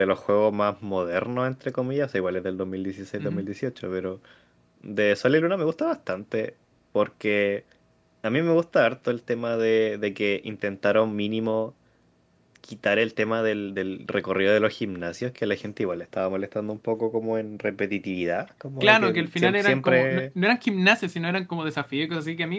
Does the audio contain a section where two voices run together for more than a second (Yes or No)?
Yes